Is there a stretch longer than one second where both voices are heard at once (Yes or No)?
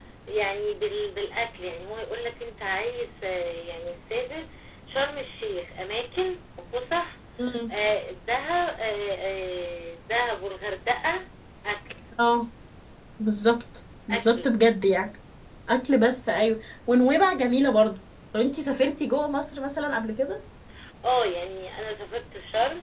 No